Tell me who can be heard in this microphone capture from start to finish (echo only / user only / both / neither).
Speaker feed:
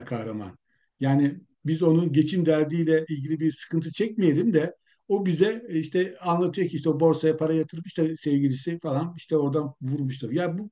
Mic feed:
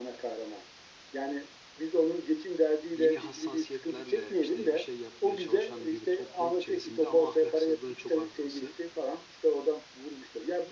both